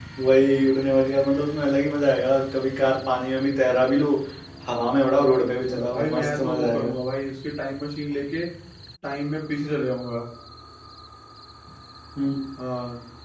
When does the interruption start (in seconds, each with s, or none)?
5.4 s